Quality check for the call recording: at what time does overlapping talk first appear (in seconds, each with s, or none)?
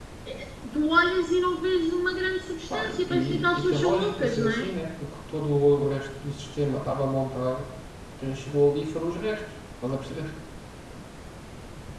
2.7 s